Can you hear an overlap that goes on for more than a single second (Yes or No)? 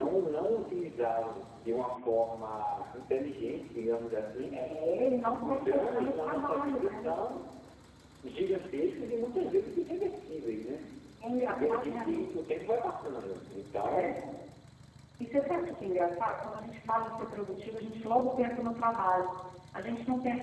Yes